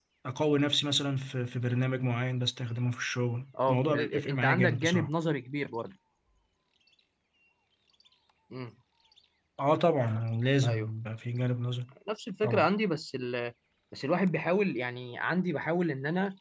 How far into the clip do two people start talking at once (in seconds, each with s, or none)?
3.7 s